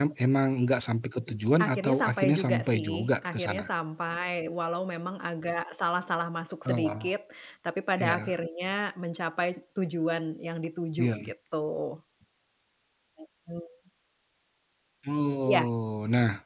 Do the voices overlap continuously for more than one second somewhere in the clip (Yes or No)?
Yes